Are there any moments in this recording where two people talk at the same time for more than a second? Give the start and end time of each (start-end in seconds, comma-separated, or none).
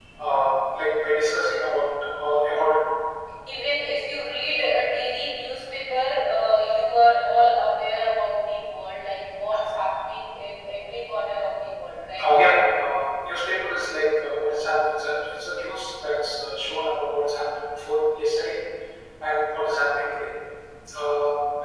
none